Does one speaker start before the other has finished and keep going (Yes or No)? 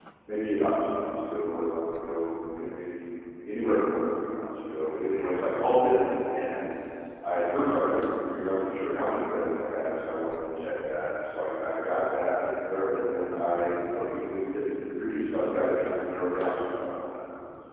No